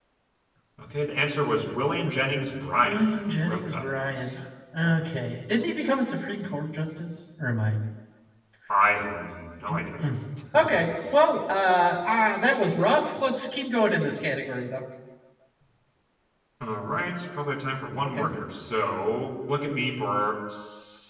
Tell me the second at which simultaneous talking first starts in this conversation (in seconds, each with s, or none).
2.8 s